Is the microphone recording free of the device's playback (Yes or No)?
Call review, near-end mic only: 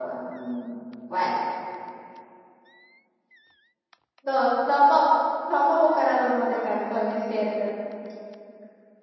Yes